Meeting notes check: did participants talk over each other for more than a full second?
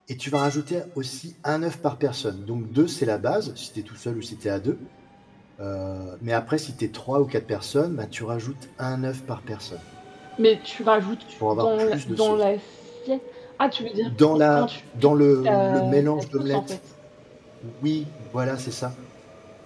Yes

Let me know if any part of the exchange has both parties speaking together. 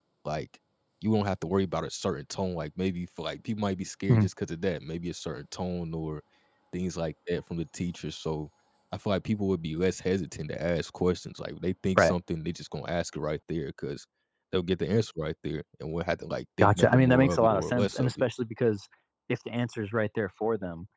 Yes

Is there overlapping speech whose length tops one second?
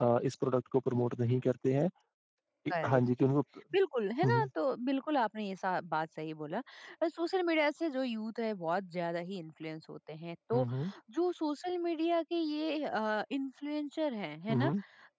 No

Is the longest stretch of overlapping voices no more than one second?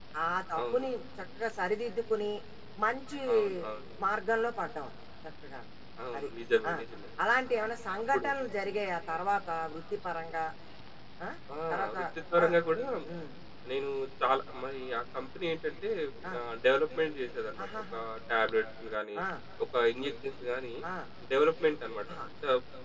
Yes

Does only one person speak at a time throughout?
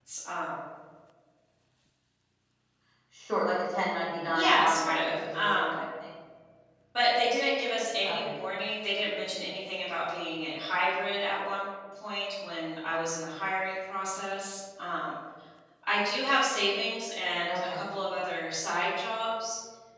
No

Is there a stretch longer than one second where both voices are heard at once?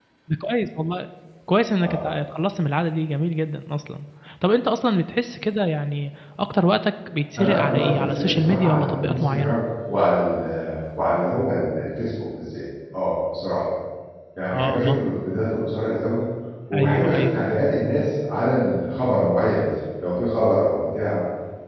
Yes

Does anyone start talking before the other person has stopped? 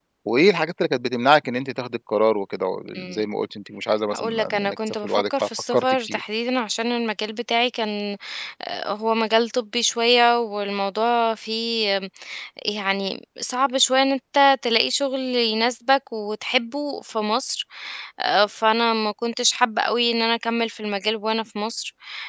Yes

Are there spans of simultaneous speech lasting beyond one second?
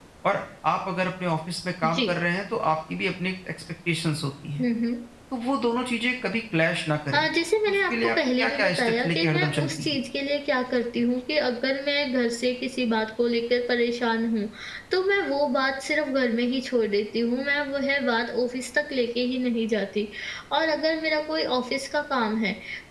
Yes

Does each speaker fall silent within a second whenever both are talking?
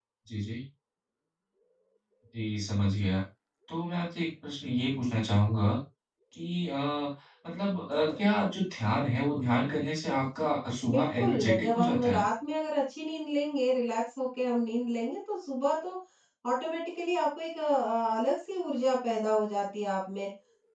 No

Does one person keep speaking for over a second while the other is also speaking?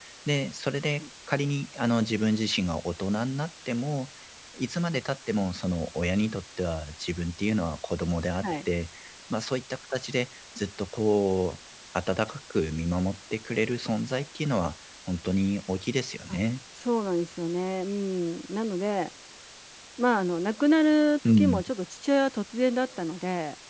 No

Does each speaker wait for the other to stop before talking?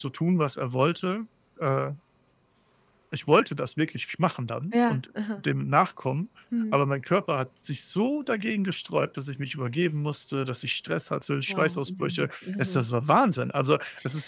No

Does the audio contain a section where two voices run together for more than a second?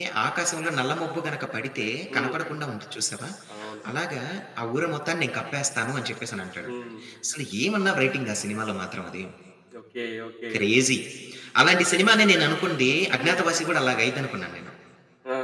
No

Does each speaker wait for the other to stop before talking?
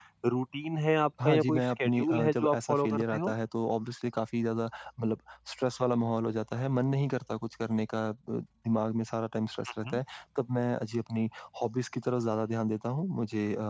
No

